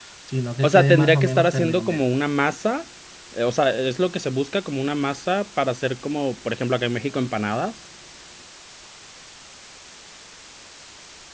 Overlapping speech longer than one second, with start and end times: 0.6-2.0

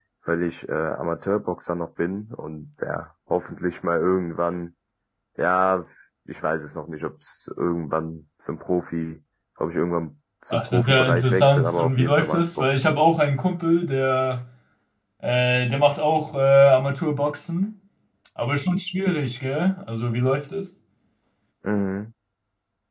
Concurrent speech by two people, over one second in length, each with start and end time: 10.5-12.8

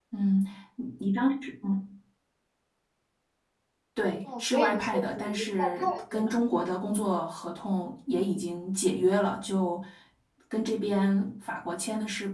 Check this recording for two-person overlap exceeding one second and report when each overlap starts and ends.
4.3-6.3

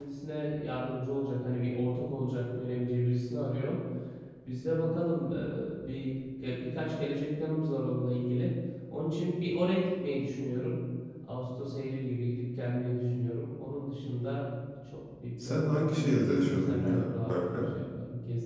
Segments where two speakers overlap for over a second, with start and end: 15.4-17.6

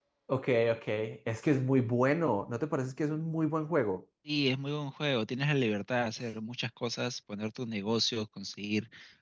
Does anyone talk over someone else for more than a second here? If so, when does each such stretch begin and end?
none

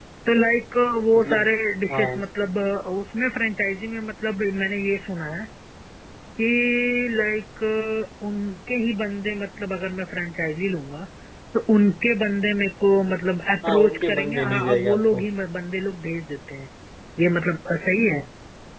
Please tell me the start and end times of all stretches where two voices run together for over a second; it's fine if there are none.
13.6-15.2

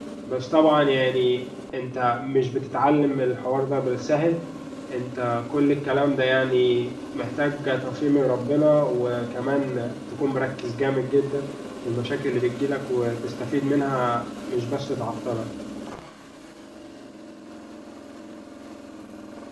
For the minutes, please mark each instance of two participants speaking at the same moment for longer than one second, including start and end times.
none

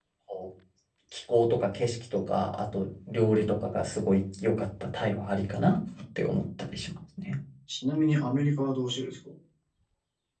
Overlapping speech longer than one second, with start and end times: none

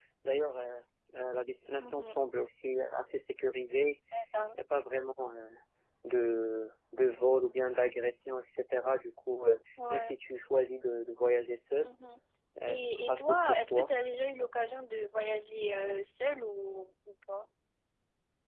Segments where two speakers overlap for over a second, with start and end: 12.7-13.9

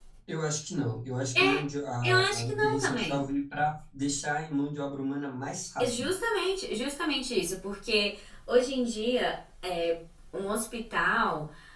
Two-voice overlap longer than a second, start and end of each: 2.0-3.3

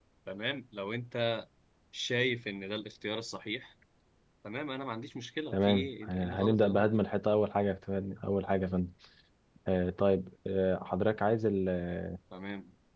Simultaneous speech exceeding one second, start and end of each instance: 5.5-6.9

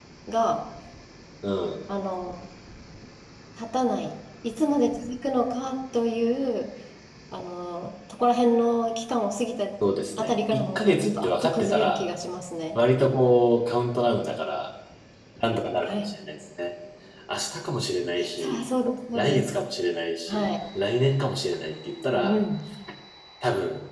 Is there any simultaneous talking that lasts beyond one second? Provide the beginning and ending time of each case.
10.2-12.1

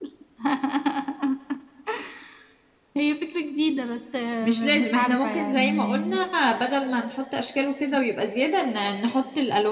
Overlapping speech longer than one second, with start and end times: 4.4-6.0

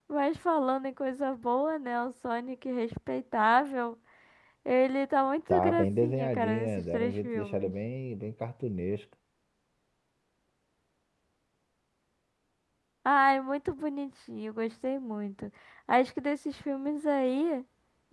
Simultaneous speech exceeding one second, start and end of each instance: 5.5-7.7

